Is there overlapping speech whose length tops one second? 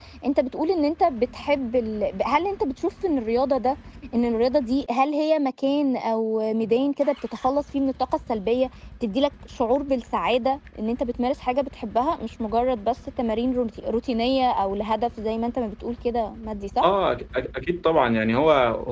No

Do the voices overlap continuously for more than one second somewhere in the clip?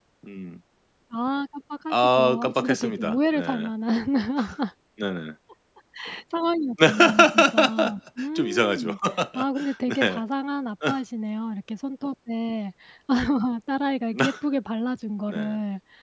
Yes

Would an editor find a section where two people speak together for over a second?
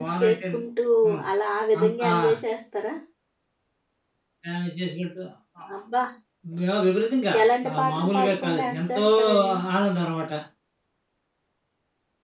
Yes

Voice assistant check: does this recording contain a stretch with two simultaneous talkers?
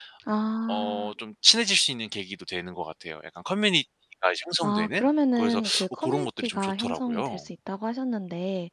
Yes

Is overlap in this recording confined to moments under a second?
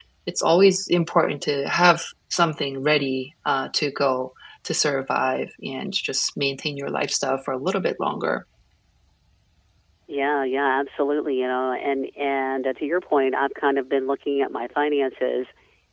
Yes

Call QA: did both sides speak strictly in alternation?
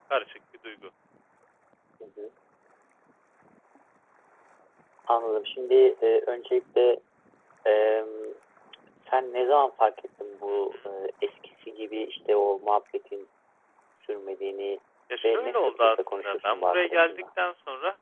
No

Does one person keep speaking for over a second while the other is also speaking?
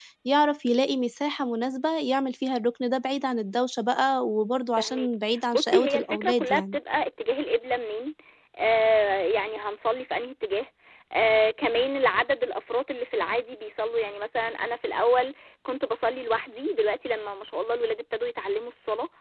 Yes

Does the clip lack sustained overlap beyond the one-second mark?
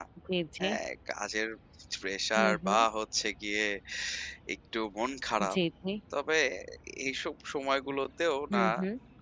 Yes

